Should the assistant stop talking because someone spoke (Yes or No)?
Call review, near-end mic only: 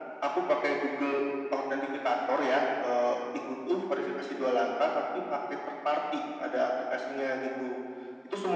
No